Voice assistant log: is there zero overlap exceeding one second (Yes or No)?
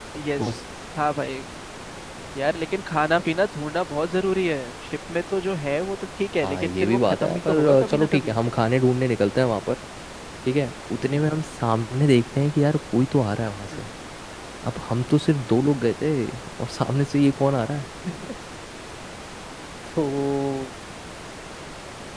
No